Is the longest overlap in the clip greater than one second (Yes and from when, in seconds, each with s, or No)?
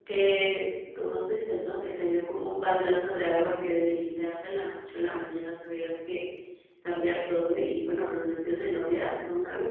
No